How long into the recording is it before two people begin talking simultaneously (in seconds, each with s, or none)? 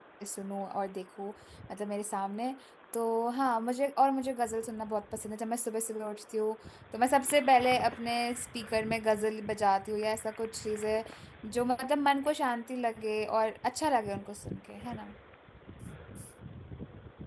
none